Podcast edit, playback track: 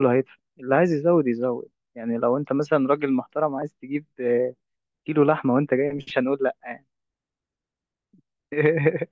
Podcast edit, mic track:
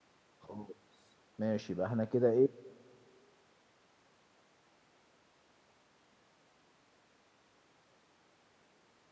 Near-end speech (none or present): present